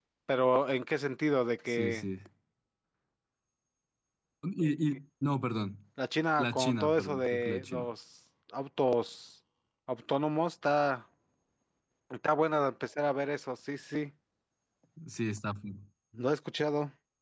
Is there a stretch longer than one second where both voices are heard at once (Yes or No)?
Yes